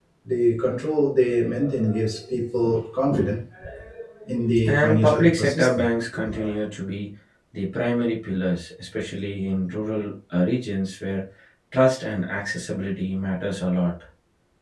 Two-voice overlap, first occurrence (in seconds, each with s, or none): 4.7 s